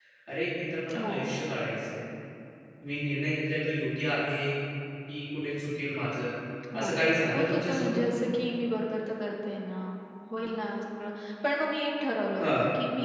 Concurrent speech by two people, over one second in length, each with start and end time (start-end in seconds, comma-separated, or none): 6.8-8.0